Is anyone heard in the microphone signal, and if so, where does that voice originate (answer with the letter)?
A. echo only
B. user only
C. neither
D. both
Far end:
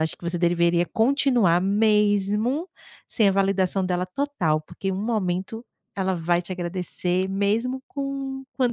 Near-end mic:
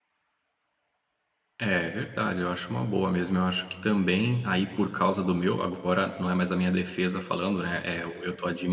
B